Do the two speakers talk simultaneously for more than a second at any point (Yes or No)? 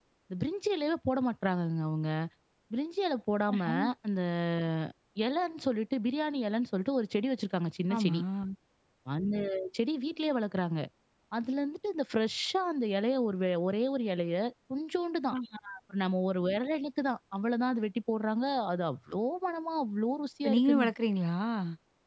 No